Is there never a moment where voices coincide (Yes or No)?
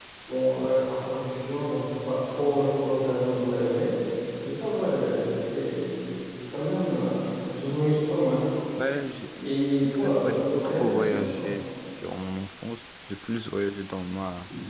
No